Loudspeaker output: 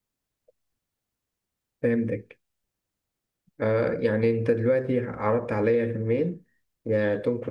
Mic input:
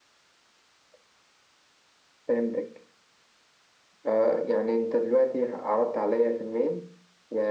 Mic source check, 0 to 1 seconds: neither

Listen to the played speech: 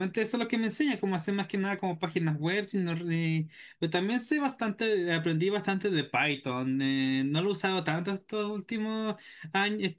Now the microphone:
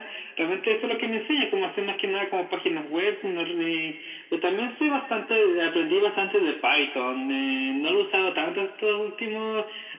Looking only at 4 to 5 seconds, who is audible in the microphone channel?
echo only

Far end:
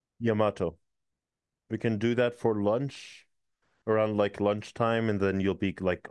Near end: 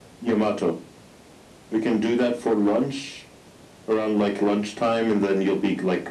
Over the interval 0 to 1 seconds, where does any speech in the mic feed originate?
echo only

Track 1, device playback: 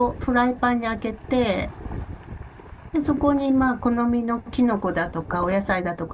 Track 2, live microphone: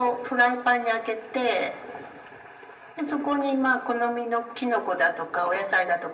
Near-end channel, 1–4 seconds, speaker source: echo only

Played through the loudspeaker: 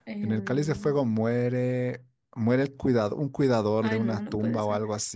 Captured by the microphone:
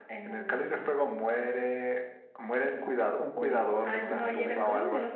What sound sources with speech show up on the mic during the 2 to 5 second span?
both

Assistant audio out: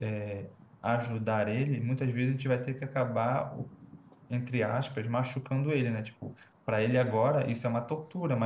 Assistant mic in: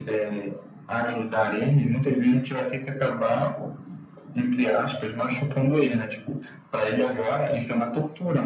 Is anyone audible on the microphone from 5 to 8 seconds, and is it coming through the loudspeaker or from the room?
echo only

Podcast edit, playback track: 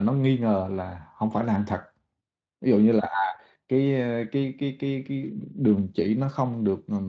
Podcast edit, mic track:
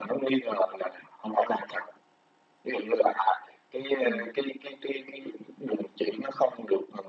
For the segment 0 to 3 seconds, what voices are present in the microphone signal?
echo only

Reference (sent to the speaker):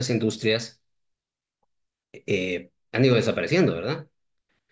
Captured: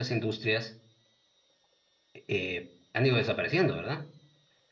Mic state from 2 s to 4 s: echo only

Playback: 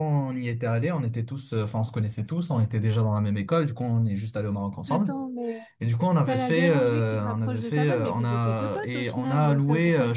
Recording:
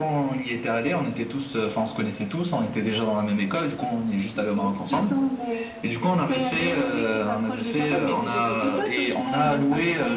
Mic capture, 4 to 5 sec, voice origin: both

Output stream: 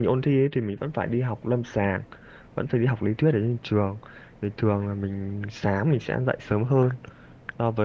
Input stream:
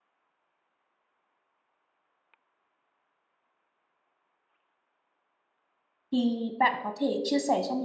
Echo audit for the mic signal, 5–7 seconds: user only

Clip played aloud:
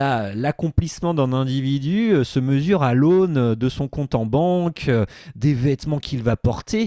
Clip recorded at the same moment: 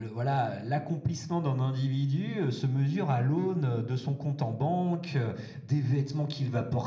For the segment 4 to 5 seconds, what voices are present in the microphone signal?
echo only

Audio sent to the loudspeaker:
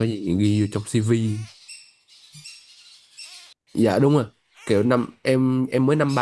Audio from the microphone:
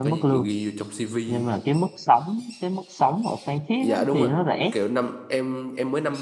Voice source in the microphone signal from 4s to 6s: both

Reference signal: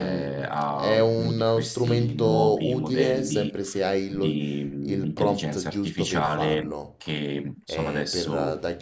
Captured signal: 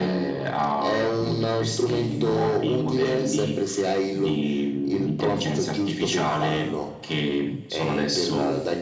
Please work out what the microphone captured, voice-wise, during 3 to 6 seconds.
echo only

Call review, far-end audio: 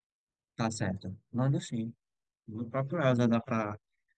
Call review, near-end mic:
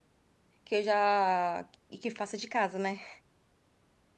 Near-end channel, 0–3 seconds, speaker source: user only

